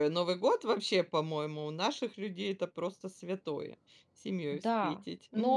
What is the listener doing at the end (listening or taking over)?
taking over